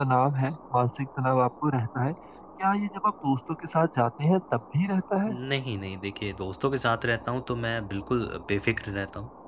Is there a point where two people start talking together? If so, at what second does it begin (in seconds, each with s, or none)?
none